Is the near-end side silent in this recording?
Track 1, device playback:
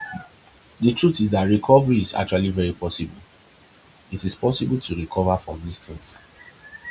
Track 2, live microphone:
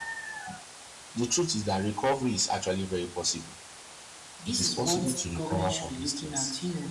No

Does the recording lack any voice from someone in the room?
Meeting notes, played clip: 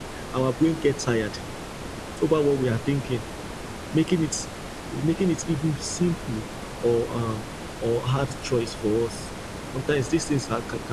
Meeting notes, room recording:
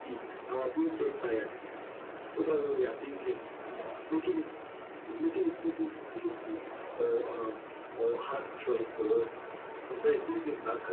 Yes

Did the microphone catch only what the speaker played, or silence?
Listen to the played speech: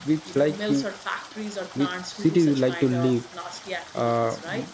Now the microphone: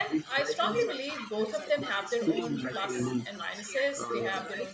No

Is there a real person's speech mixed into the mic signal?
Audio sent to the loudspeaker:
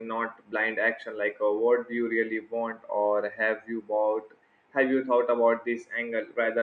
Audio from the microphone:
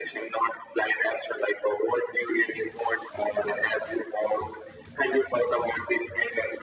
No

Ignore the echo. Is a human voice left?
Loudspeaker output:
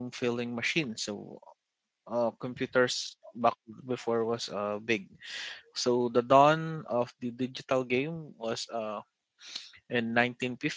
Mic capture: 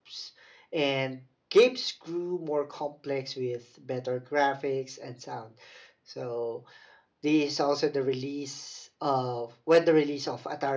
Yes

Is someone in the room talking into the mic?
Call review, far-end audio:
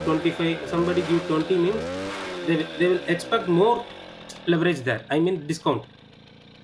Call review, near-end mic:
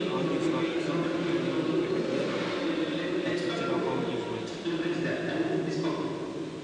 Yes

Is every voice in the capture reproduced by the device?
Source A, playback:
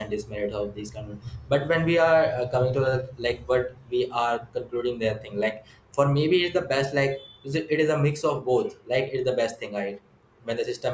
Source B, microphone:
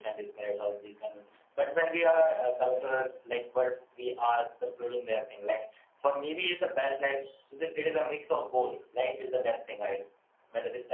Yes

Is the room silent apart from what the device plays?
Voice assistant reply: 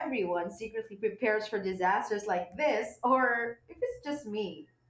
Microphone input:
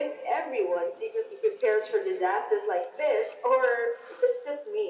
Yes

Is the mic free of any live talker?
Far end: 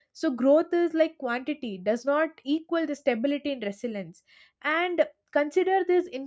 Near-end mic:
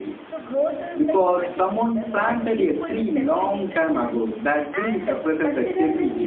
No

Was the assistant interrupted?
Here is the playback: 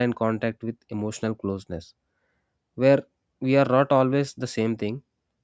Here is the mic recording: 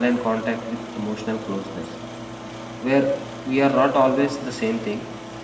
No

